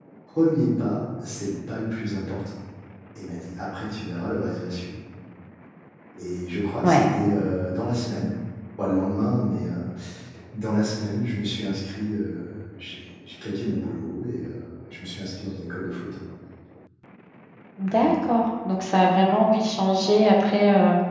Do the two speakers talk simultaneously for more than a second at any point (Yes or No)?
No